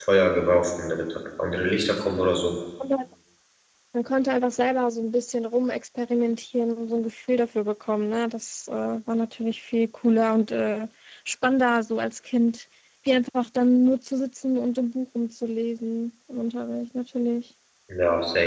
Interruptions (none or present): none